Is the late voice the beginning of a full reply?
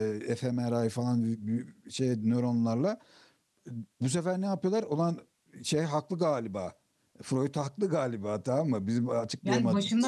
Yes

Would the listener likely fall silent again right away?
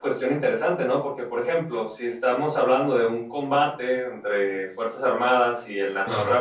Yes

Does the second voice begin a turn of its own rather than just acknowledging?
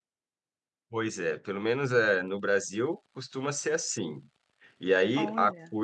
No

